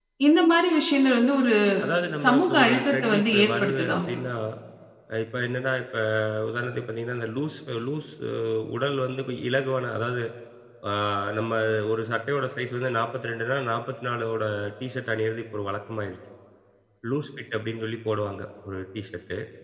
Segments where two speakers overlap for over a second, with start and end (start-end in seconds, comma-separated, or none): 2.2-4.0